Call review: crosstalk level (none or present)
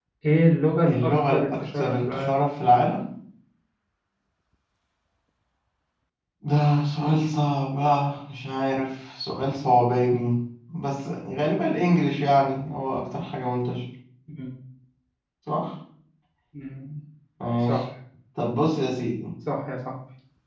present